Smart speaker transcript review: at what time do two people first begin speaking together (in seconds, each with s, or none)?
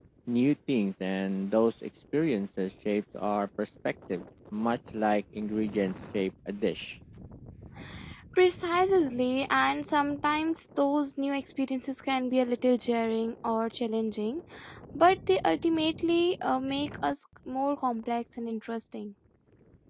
none